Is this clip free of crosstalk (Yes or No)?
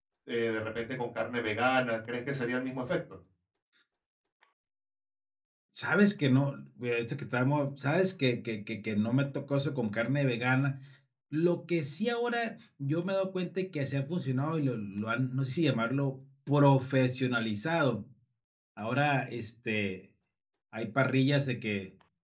Yes